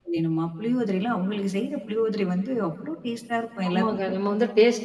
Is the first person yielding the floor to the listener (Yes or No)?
Yes